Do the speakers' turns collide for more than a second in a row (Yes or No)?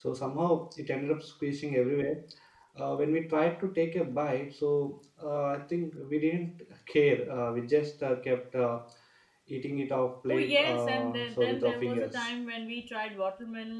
Yes